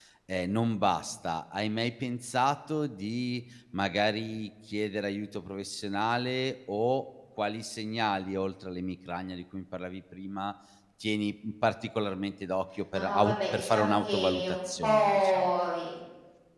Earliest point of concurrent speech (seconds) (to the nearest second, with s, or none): 13 s